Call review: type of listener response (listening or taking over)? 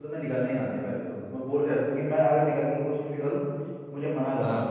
listening